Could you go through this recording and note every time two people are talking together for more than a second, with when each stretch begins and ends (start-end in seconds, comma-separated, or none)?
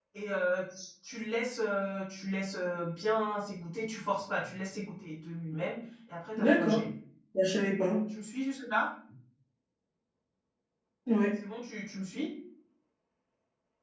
none